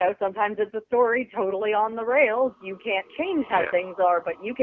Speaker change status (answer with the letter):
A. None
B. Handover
A